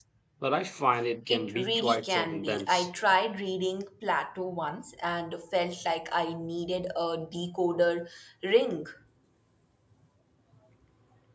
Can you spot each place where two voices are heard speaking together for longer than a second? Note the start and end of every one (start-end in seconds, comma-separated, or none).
1.3-2.9